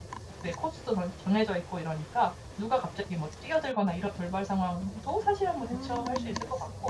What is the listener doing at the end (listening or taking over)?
listening